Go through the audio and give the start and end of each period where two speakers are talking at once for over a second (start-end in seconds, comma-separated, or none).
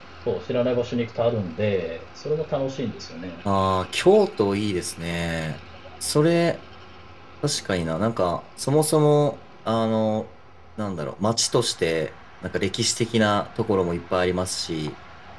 none